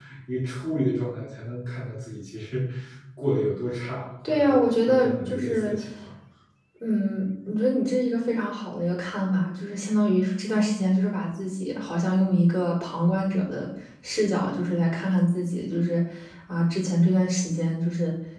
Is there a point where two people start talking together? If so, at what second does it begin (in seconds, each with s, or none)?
4.2 s